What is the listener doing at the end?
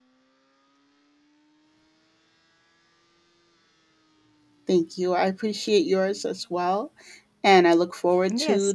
taking over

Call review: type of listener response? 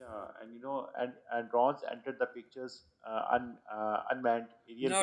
taking over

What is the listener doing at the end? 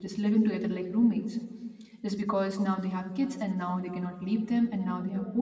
listening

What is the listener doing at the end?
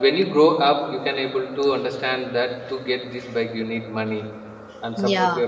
listening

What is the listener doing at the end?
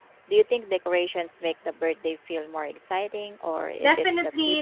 taking over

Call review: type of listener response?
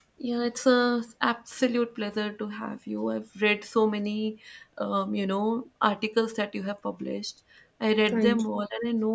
listening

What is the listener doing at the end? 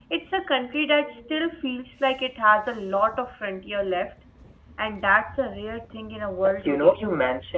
taking over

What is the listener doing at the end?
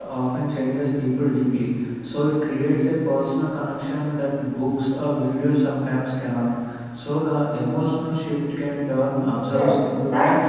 taking over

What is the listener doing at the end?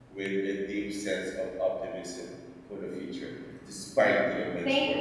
taking over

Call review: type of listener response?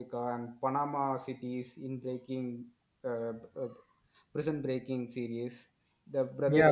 taking over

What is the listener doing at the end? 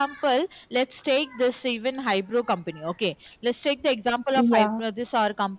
listening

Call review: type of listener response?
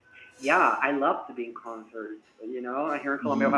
listening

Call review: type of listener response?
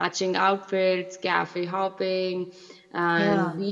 listening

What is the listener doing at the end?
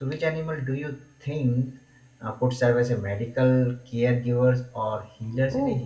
taking over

